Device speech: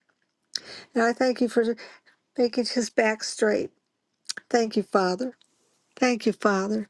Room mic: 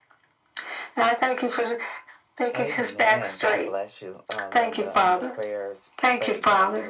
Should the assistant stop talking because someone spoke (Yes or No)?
Yes